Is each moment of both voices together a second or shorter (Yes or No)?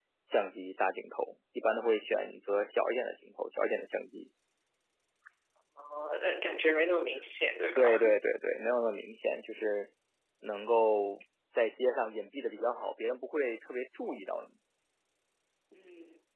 Yes